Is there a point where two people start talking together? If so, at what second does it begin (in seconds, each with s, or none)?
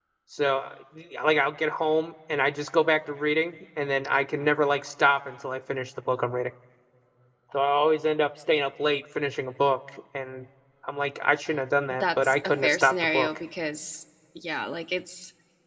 11.9 s